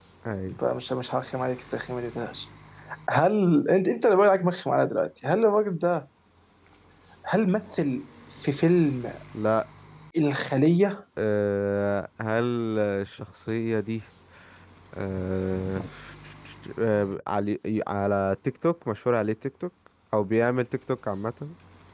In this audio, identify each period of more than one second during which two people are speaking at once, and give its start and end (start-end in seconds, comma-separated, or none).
none